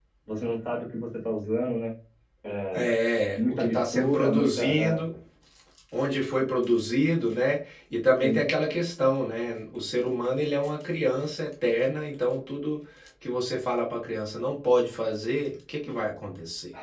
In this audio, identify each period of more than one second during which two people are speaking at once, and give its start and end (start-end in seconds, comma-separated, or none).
3.4-5.0